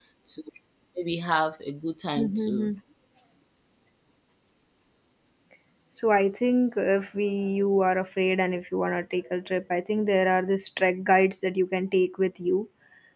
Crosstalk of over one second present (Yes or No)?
No